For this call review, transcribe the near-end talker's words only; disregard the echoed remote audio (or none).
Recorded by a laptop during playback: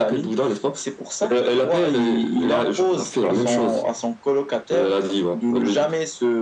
Et et-